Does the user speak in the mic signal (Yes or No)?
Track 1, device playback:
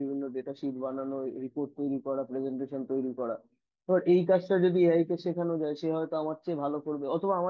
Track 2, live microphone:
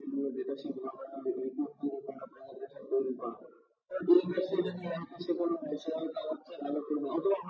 No